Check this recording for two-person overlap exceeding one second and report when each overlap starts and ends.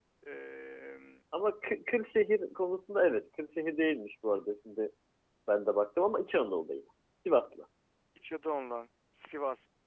none

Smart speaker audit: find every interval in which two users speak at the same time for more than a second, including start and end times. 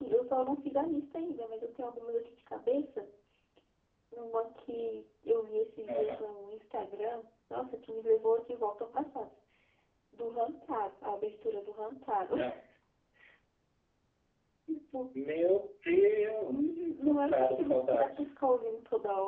16.4-18.4

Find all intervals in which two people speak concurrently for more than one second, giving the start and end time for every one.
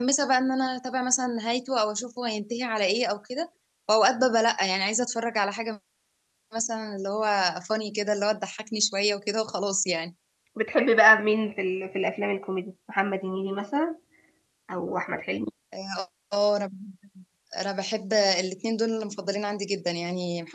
none

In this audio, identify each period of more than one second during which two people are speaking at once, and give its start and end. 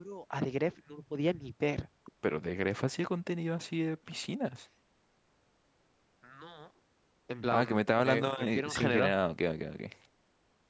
7.5-9.2

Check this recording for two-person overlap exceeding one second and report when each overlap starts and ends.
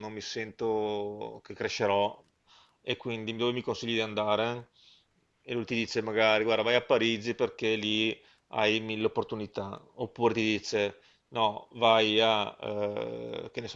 none

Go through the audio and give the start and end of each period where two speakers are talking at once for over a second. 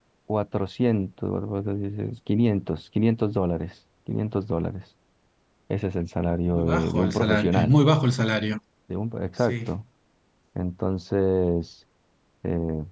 6.5-7.7

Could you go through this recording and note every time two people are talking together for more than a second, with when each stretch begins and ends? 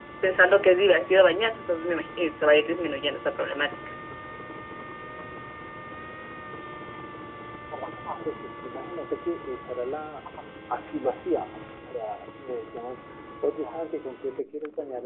none

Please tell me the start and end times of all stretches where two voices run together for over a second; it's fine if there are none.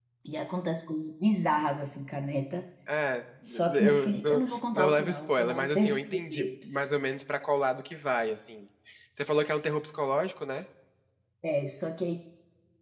3.7-6.5

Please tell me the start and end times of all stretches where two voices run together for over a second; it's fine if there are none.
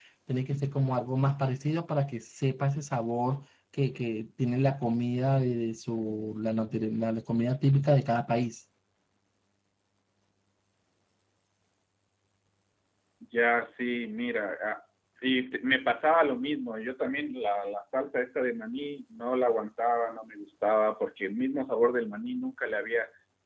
none

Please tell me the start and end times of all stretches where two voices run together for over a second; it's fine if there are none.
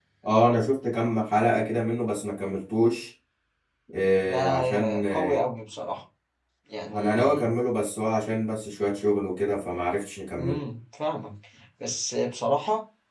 4.2-5.4

